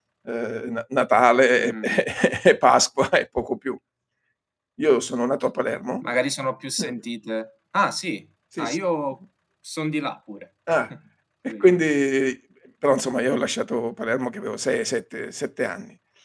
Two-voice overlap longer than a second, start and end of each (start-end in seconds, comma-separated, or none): none